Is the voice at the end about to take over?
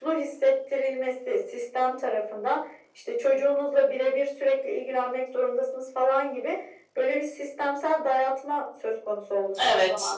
No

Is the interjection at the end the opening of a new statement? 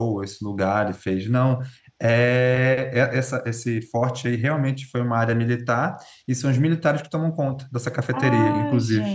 Yes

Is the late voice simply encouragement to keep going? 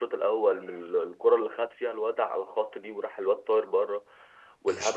Yes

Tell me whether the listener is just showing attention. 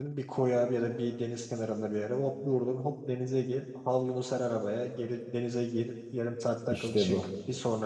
Yes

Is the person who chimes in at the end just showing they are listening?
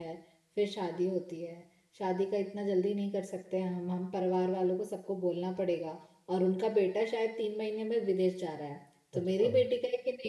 Yes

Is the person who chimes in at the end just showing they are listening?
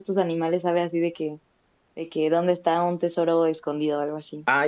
No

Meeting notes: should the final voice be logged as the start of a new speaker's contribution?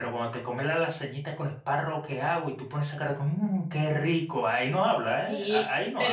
Yes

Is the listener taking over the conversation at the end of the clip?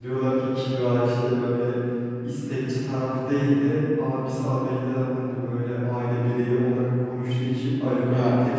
No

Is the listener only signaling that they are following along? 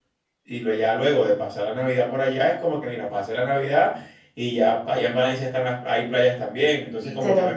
No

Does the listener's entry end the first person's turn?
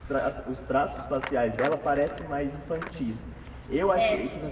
No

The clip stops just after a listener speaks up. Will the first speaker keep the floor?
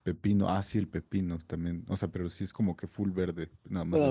No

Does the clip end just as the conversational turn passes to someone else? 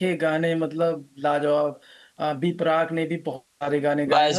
Yes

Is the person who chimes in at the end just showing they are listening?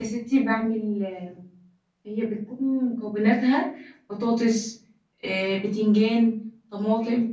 Yes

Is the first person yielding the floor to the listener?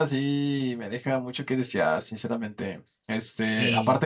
No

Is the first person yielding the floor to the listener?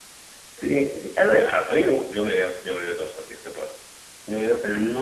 No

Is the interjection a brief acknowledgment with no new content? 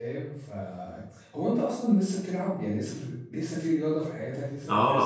No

